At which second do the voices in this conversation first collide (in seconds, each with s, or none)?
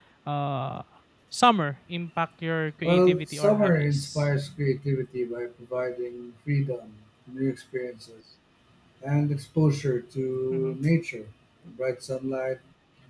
2.8 s